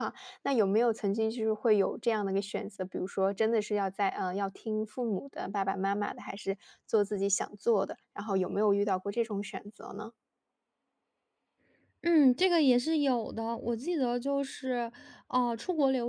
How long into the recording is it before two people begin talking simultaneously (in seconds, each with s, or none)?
none